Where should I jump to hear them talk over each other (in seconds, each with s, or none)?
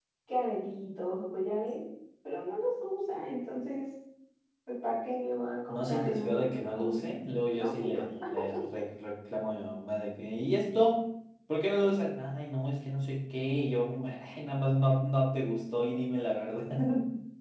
5.7 s